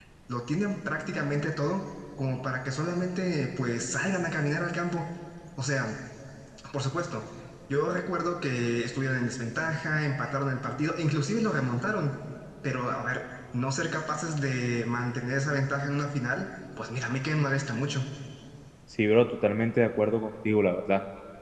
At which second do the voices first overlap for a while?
none

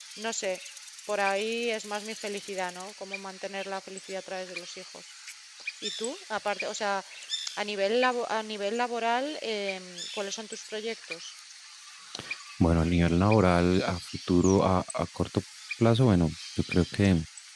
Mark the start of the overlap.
none

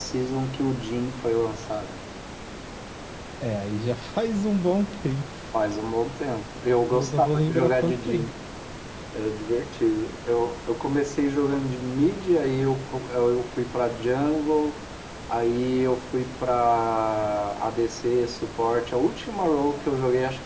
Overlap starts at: 6.9 s

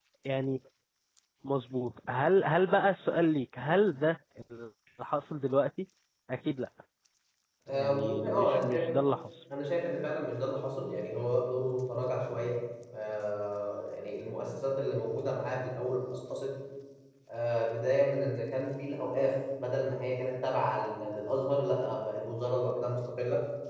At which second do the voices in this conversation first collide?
7.7 s

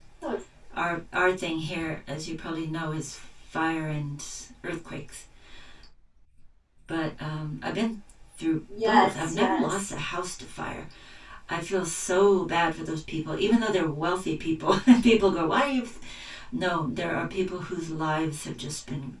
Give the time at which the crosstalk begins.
8.7 s

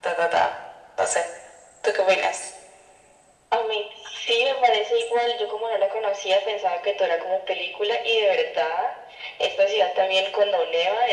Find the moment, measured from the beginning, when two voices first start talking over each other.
none

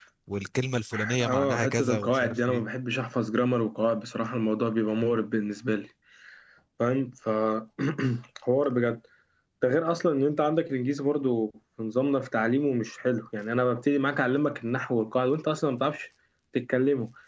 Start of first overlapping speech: 1.2 s

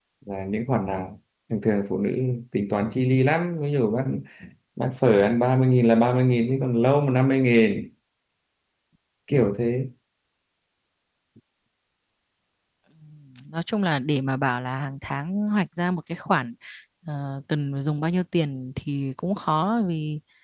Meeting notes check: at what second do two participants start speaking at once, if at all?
none

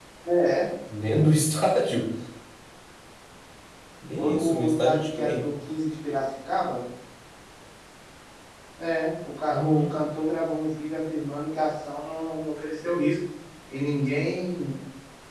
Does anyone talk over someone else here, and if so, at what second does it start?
4.2 s

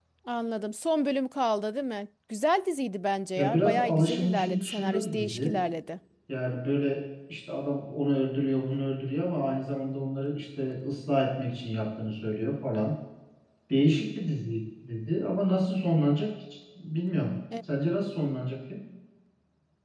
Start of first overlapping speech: 3.4 s

